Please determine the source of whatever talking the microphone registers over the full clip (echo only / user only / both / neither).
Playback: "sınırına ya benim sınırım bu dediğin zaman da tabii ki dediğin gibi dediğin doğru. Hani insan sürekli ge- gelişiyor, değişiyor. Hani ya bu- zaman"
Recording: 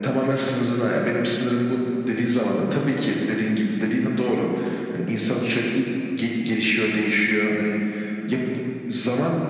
echo only